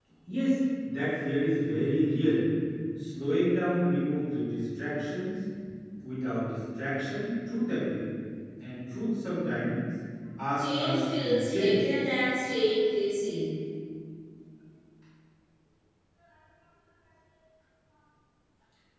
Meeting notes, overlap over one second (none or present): present